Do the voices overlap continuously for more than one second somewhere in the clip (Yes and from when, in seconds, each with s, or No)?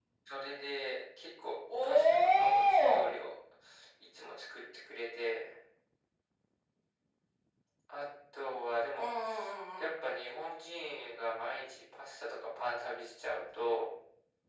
Yes, from 1.8 s